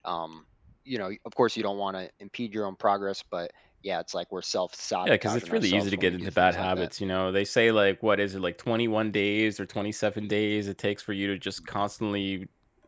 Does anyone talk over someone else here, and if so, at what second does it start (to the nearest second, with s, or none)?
5 s